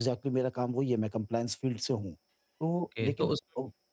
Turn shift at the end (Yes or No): Yes